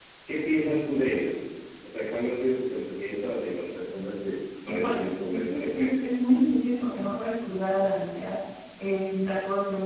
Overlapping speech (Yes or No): Yes